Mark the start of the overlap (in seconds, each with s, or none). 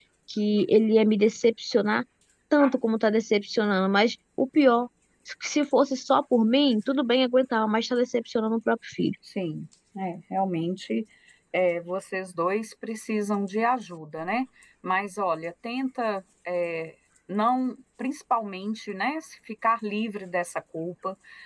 none